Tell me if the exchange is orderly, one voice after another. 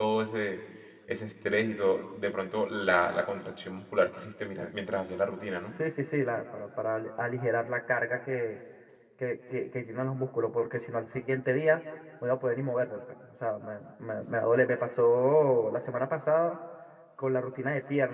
Yes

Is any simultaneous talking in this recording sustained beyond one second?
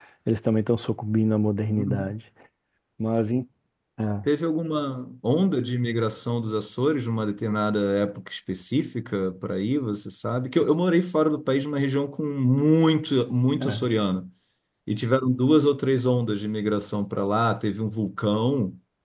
No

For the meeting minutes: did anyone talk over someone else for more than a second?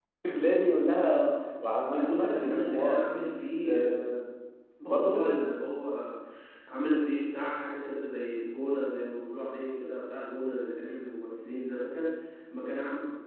Yes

